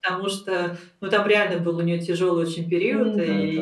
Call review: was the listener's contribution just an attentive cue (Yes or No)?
Yes